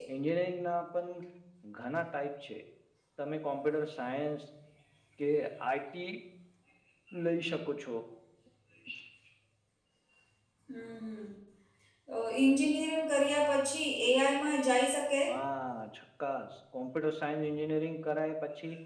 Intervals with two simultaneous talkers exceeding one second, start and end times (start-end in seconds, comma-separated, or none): none